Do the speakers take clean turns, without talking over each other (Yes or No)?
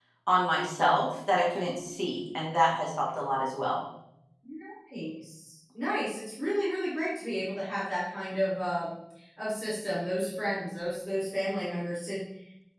Yes